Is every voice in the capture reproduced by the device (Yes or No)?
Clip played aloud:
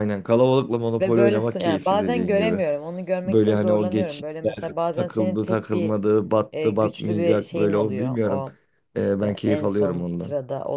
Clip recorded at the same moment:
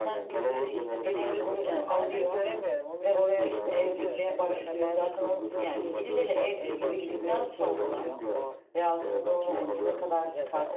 No